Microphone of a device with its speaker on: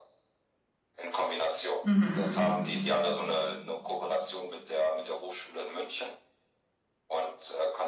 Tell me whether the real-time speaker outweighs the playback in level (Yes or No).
Yes